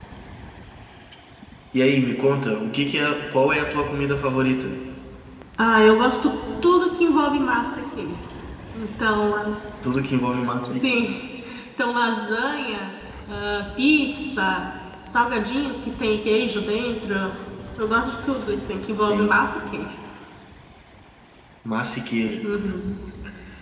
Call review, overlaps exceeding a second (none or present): none